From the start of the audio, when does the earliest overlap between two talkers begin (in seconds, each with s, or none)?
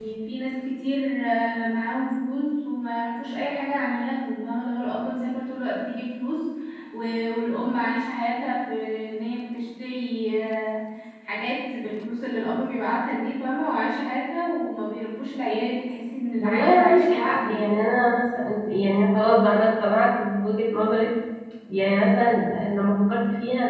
16.4 s